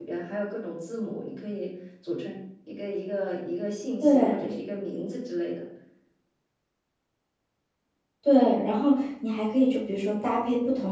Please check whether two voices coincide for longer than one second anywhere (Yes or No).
No